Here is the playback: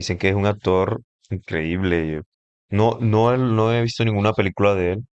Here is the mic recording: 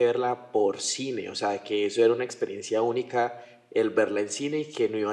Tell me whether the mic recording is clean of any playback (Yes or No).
Yes